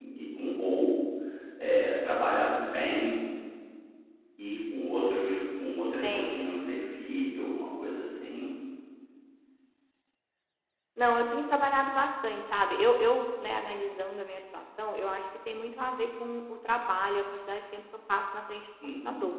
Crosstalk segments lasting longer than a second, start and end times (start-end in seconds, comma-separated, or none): none